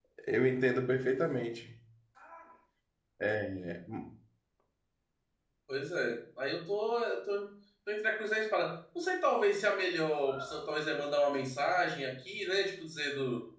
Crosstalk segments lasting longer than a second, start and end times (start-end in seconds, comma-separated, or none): none